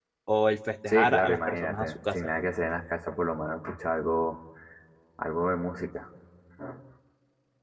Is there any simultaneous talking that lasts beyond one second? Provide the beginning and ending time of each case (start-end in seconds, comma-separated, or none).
0.9-2.2